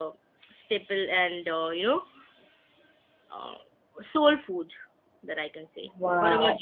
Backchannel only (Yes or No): No